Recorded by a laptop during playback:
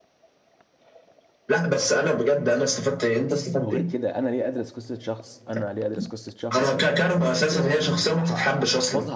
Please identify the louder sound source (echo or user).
echo